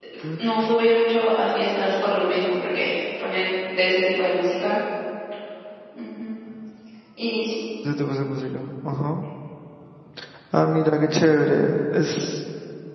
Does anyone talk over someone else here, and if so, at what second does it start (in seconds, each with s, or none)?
none